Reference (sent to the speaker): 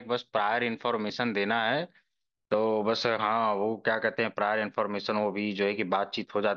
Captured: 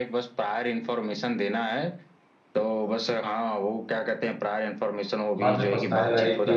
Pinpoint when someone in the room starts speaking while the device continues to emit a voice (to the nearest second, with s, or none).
5 s